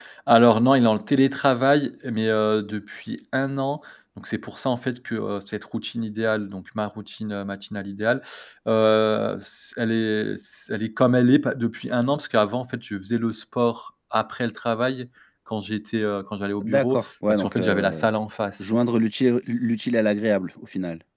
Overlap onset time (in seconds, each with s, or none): 16.6 s